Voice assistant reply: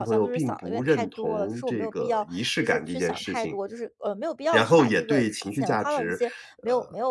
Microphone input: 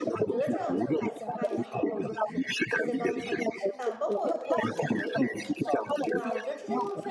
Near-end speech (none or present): present